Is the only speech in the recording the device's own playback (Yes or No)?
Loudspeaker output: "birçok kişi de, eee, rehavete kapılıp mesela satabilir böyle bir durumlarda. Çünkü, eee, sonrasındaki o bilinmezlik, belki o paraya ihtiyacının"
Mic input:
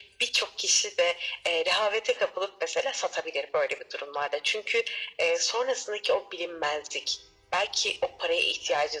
Yes